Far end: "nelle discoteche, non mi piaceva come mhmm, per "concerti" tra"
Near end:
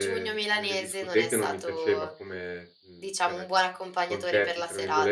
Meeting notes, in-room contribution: present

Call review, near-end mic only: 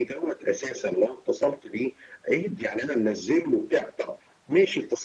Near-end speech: none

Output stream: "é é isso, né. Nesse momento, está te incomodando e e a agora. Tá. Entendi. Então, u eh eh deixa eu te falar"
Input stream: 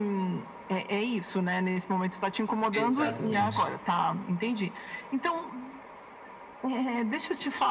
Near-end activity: present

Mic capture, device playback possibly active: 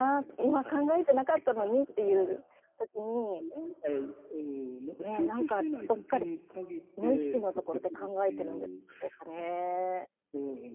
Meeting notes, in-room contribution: present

